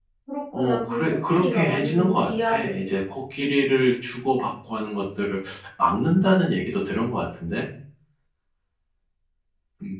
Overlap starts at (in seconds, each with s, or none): 0.5 s